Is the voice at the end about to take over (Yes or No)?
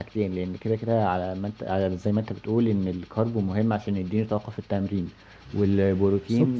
No